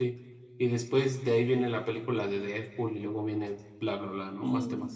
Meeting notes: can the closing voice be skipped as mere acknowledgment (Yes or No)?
No